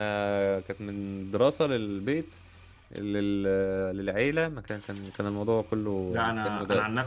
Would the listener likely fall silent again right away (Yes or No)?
No